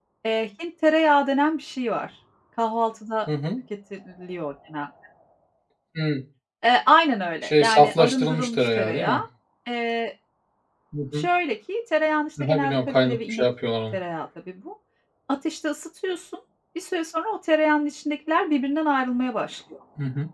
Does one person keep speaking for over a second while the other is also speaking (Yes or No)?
Yes